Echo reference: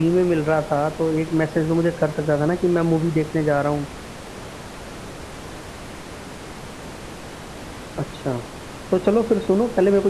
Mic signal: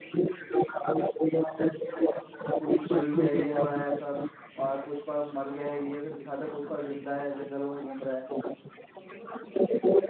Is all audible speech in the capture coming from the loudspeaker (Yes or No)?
No